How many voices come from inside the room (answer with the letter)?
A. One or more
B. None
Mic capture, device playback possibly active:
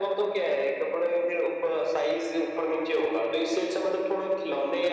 B